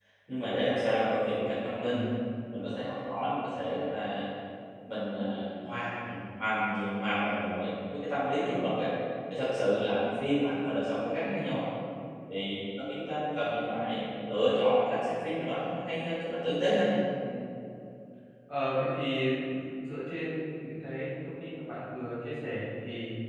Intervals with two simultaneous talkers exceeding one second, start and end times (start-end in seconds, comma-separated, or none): none